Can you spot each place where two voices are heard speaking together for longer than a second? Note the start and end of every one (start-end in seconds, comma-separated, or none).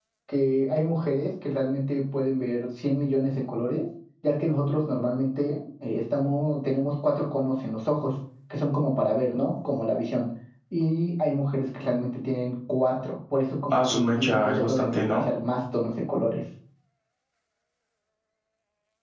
13.7-15.2